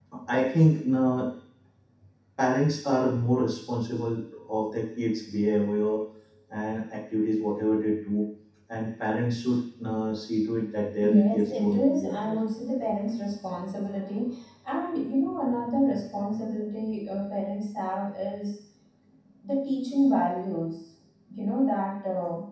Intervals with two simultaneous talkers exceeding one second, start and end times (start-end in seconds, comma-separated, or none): 11.0-12.3